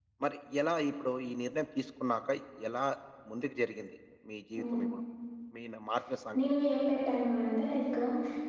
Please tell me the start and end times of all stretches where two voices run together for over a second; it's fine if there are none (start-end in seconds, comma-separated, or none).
none